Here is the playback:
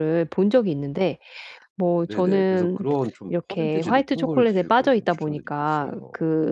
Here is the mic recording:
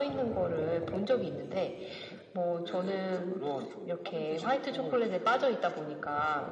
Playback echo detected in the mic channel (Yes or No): Yes